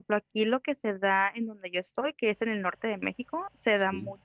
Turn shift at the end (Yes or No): No